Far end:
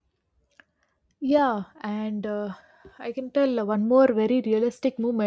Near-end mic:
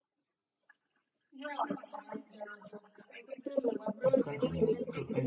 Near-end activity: present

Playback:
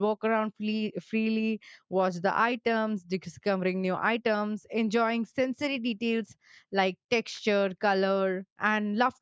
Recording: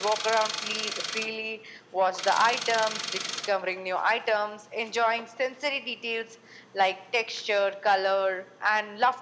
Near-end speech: none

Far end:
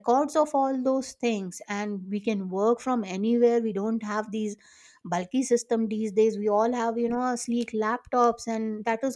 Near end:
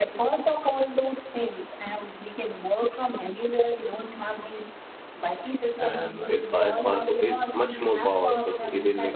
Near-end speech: present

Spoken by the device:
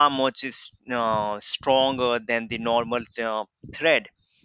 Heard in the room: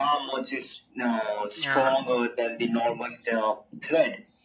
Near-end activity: present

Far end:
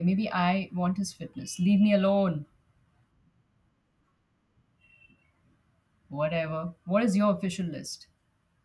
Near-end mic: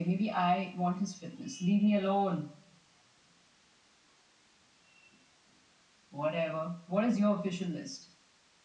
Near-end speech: none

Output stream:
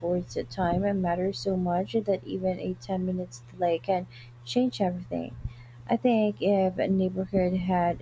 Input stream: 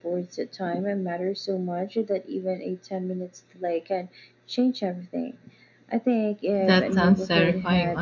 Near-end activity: present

